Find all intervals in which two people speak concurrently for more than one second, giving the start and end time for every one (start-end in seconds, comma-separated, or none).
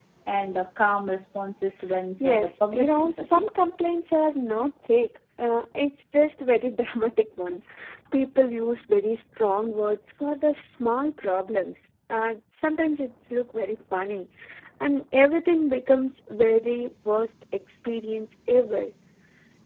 2.2-3.5